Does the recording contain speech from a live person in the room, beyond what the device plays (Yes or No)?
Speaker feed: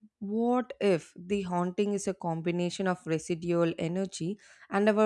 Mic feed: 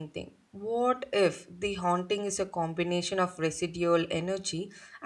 No